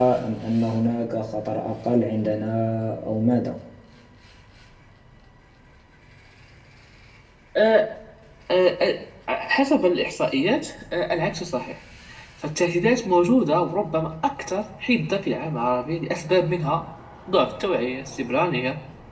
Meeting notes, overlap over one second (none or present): none